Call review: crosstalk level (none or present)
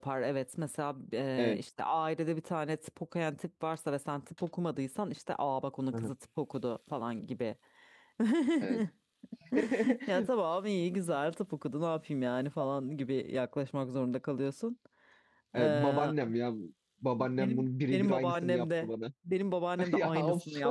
present